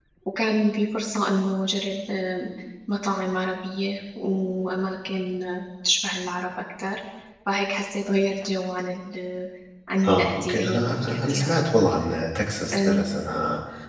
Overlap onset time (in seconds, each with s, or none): 10.1 s